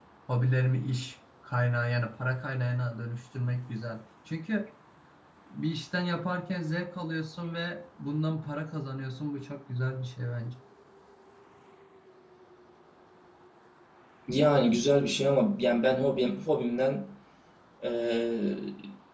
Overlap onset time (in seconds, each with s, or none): none